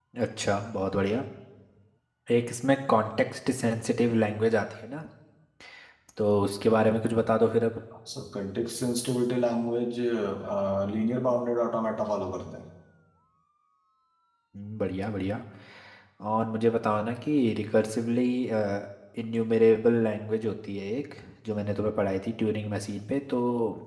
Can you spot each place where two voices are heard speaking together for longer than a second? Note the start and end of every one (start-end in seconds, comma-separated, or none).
none